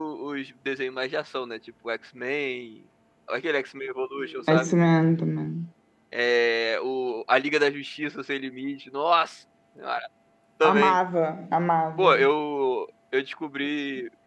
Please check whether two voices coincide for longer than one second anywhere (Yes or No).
No